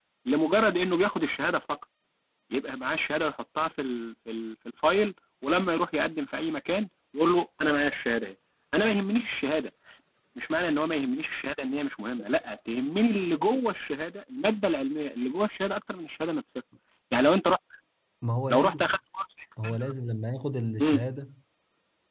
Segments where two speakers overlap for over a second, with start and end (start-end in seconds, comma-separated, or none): none